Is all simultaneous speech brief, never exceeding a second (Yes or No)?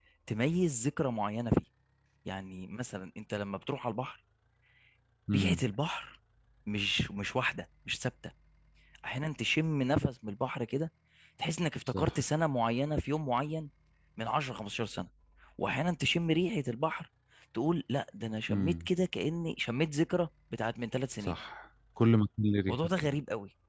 Yes